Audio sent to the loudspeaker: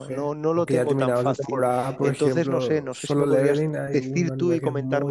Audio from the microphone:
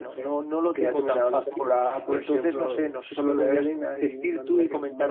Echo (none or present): present